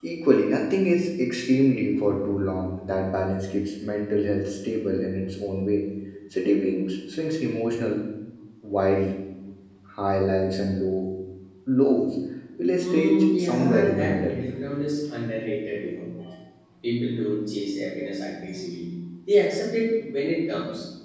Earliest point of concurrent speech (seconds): 12.8 s

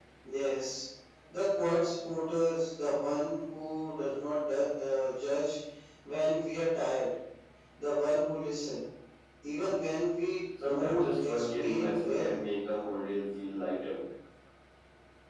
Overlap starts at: 10.6 s

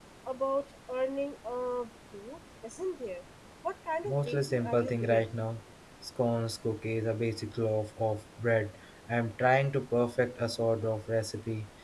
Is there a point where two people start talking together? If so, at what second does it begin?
4.1 s

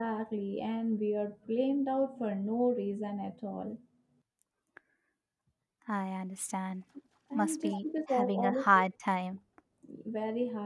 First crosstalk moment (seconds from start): 7.3 s

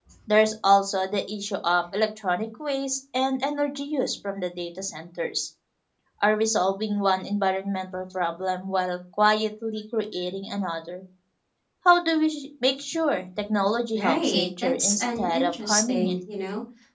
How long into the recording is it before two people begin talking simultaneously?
13.9 s

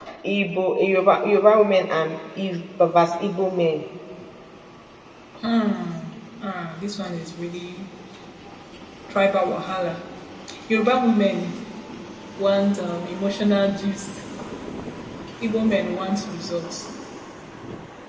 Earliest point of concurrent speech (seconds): none

